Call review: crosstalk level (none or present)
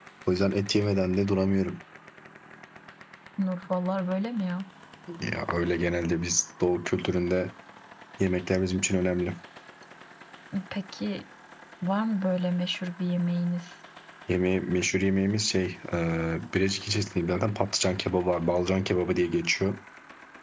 none